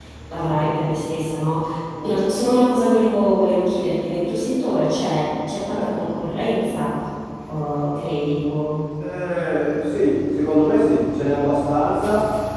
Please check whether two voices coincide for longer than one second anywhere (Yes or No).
No